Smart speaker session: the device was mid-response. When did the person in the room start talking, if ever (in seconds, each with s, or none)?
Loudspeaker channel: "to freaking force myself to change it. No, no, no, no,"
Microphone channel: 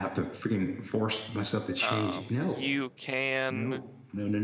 1.8 s